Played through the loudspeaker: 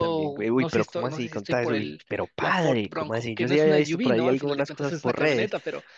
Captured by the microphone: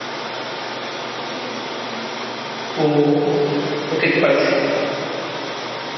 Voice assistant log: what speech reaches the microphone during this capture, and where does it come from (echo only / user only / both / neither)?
user only